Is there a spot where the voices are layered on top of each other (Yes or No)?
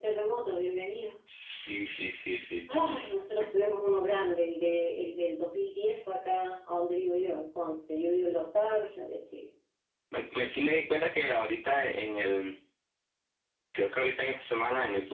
No